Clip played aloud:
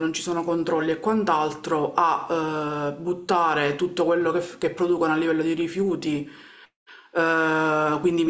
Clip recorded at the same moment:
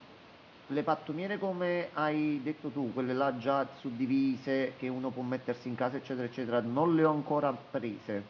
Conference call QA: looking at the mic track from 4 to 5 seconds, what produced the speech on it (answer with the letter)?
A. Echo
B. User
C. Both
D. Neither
B